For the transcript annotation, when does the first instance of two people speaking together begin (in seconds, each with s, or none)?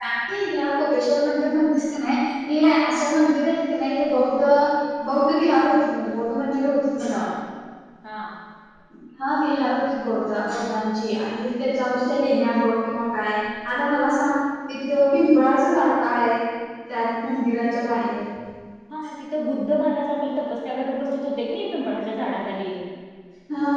none